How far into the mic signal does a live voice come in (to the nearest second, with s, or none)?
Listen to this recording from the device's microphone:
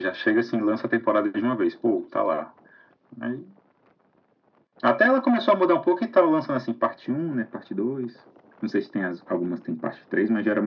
none